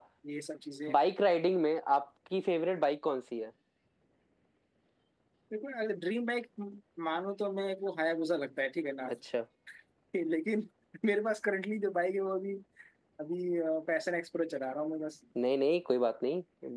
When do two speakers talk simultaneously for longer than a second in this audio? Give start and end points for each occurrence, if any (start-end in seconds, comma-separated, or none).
none